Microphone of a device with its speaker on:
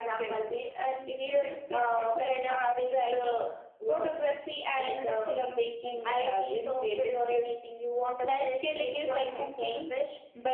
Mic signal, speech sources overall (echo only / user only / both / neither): echo only